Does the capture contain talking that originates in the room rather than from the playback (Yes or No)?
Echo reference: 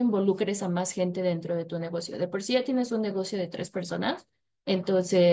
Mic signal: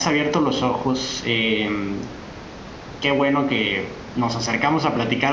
Yes